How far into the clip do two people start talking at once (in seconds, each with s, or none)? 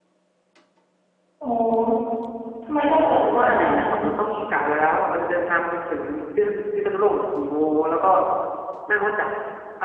3.0 s